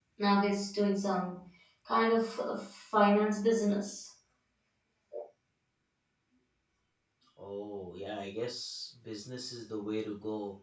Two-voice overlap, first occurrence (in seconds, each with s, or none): none